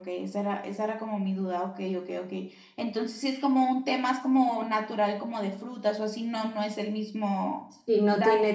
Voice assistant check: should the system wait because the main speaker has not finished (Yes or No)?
No